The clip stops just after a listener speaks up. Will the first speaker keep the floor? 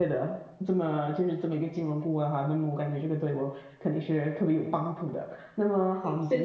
Yes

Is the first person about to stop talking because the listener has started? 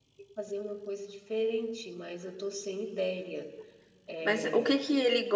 Yes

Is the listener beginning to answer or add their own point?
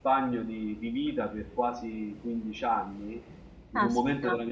No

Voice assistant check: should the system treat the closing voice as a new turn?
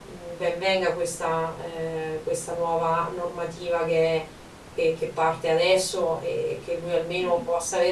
No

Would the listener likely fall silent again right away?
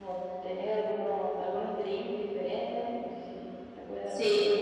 No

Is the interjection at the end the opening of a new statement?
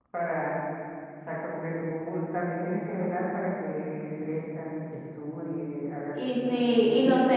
Yes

